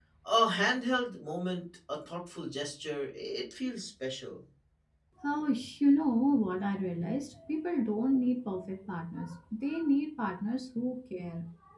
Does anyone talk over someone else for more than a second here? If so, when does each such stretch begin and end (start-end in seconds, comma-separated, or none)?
none